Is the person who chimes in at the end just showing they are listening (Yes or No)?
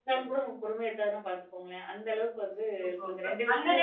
No